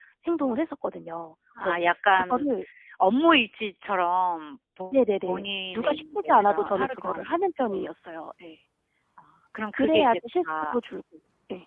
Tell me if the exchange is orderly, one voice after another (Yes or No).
No